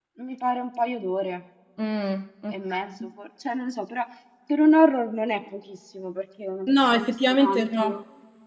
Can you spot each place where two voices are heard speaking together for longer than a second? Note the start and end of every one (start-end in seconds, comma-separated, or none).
6.7-8.0